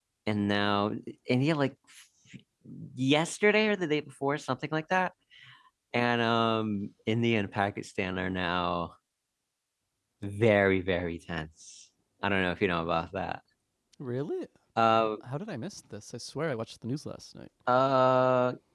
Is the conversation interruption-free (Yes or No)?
Yes